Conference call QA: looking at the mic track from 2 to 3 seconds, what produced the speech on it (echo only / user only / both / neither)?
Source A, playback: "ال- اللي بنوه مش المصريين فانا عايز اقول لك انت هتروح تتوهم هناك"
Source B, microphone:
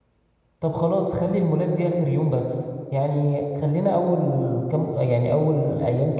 user only